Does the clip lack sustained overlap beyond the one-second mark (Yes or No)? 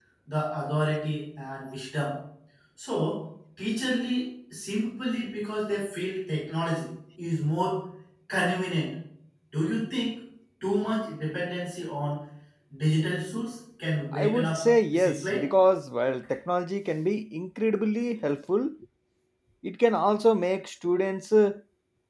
No